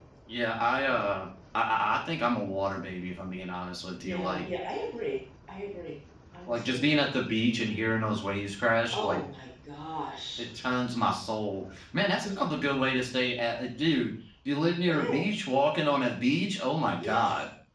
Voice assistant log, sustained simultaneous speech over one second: none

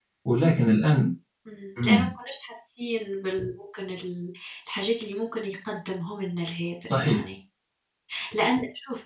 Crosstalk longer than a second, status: none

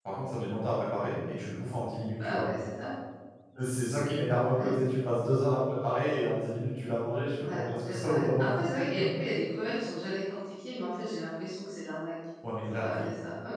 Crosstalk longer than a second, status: present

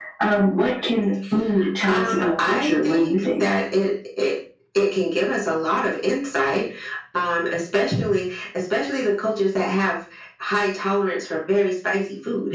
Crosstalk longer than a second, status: present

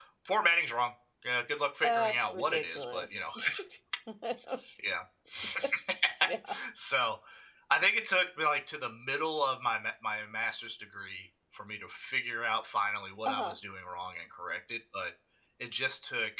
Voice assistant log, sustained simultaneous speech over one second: present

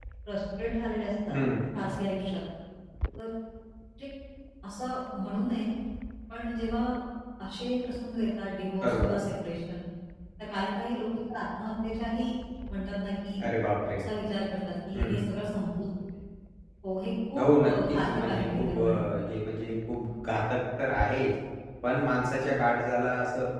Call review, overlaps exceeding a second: present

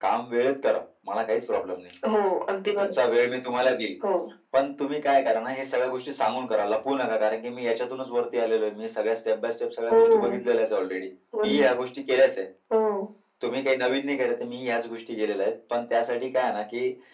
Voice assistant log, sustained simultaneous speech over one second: none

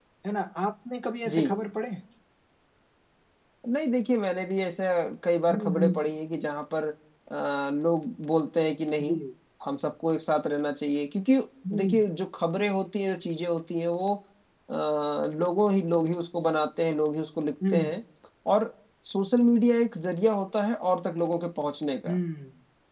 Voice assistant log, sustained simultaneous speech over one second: none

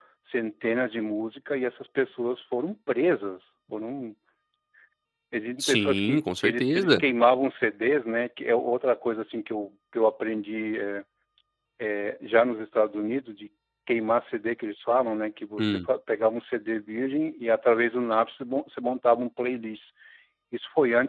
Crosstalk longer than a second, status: present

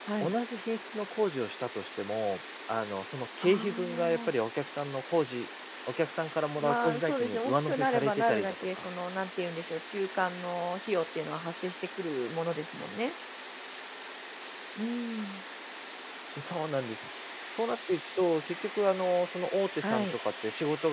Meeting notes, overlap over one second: present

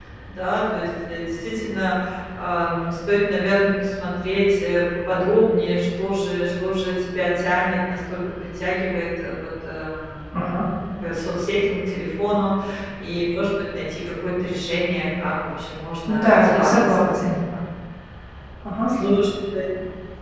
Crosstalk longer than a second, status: present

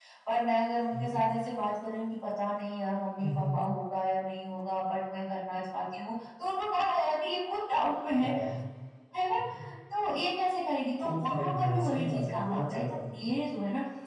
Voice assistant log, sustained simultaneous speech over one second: present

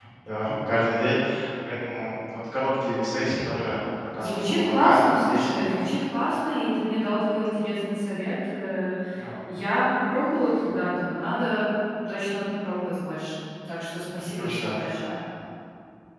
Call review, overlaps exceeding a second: present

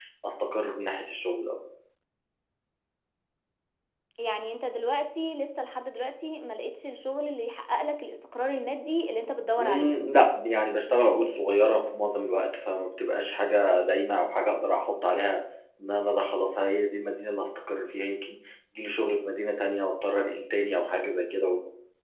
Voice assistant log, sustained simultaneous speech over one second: none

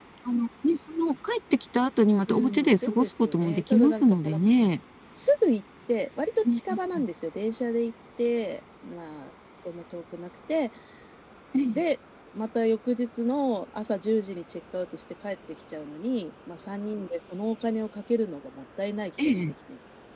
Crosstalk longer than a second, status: present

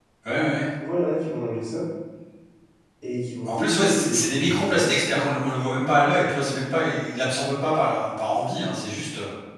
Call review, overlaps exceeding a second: present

